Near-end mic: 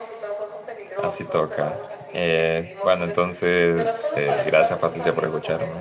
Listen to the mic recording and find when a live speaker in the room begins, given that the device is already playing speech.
0.9 s

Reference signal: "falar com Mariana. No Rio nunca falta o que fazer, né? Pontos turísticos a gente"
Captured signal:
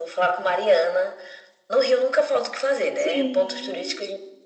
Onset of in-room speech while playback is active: 2.9 s

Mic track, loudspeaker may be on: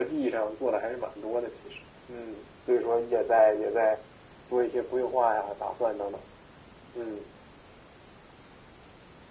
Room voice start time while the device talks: none

